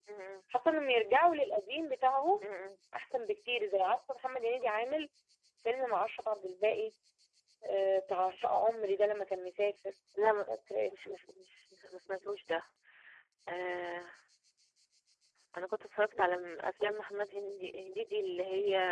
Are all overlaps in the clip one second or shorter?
Yes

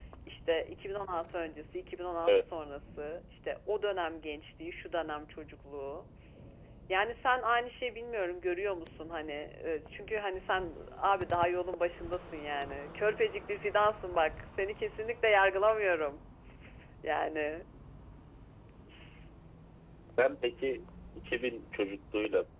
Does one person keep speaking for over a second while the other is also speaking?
No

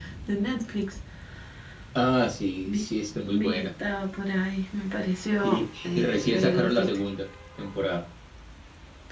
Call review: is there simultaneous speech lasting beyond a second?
Yes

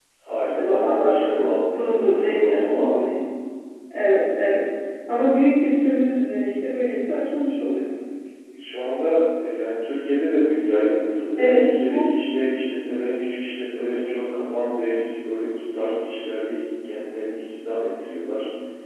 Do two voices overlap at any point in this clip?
Yes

